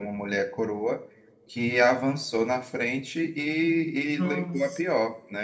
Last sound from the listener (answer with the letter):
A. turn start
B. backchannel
B